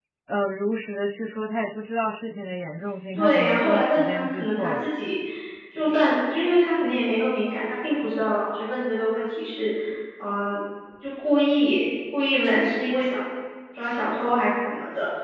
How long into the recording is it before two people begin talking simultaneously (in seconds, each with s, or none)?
3.1 s